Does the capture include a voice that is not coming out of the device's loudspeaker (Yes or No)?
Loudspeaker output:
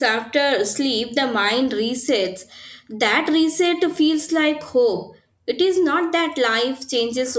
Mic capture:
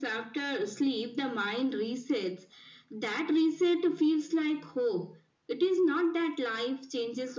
No